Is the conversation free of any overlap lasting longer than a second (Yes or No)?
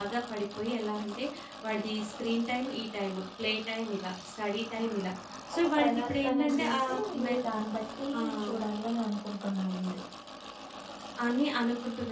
No